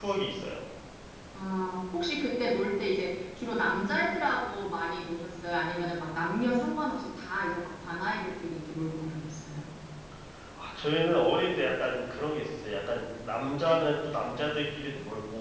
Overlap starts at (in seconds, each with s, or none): none